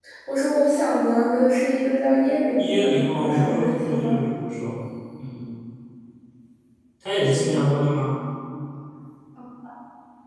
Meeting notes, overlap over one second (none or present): present